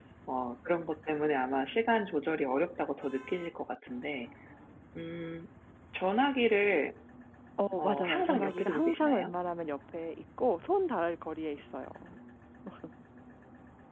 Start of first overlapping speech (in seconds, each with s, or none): 7.8 s